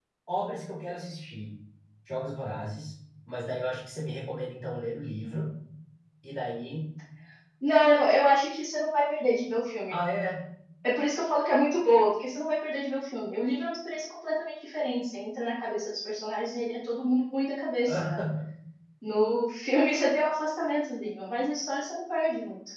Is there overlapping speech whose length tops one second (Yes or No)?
No